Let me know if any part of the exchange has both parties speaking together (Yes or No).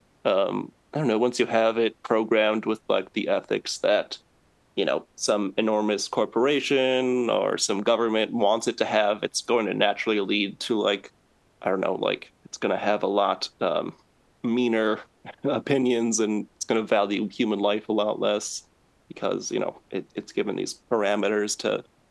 No